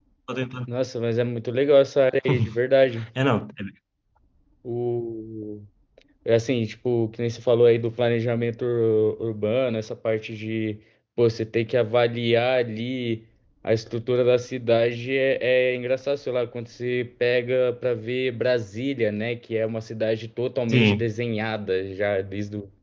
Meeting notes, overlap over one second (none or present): none